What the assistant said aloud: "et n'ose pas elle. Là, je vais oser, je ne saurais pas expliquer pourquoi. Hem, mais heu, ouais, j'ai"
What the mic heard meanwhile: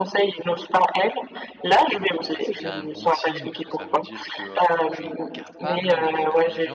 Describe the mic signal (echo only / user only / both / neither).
both